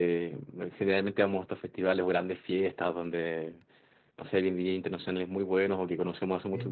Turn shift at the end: No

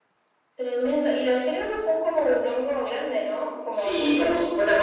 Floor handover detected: Yes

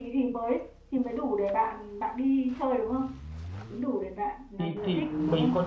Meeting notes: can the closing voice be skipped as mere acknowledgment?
No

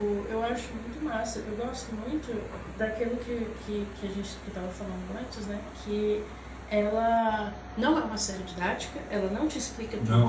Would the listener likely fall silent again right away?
Yes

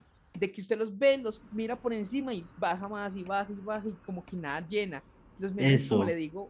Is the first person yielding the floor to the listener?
No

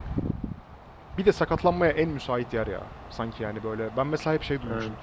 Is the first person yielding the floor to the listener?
No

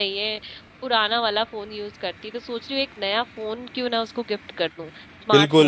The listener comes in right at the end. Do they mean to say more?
Yes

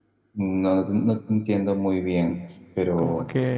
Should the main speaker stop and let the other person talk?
Yes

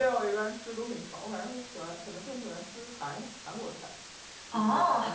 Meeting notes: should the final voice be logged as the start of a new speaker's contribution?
Yes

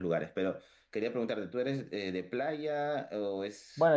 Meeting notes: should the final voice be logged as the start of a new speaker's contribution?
Yes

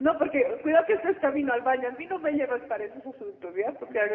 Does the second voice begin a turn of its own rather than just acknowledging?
No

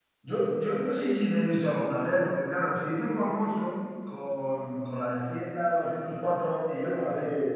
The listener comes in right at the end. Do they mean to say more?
Yes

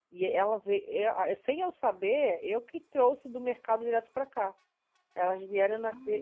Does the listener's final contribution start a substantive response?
No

